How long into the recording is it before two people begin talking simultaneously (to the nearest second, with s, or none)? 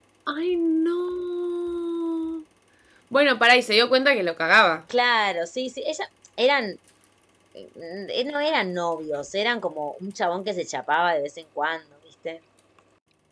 none